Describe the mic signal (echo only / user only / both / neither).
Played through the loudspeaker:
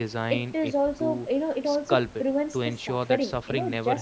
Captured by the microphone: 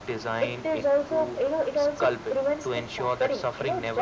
echo only